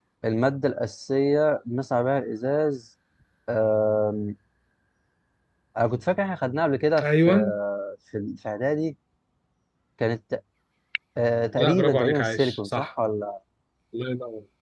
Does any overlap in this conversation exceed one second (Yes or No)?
Yes